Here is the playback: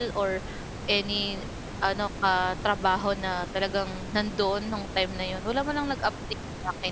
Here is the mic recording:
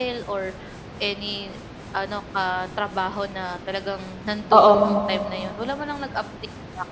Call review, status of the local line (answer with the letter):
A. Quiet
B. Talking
B